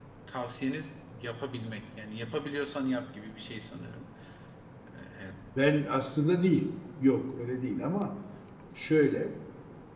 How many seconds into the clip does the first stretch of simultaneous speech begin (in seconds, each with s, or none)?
none